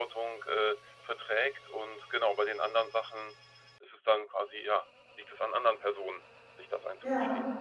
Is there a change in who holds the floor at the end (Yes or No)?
Yes